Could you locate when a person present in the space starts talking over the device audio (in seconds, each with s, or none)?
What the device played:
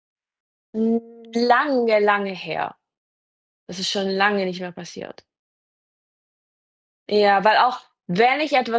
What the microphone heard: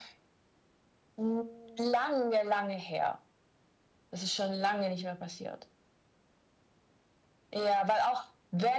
none